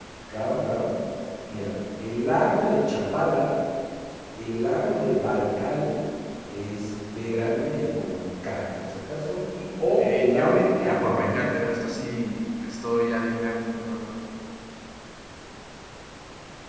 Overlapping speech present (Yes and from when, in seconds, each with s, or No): Yes, from 10.0 s